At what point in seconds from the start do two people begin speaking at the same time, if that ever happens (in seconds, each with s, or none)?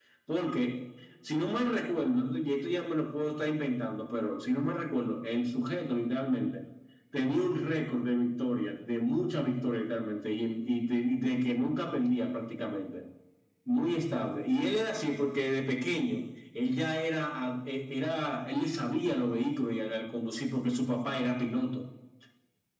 none